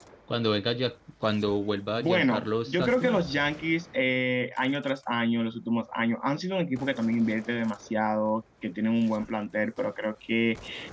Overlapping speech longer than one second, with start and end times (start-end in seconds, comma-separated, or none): 1.9-3.2